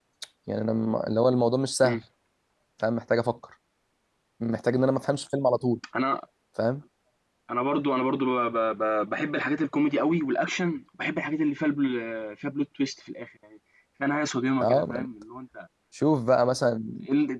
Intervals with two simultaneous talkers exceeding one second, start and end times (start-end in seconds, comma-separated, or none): none